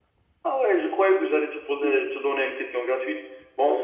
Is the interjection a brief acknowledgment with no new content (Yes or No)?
Yes